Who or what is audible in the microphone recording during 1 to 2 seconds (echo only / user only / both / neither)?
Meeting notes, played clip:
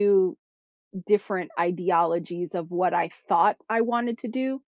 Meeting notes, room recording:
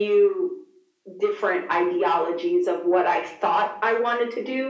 echo only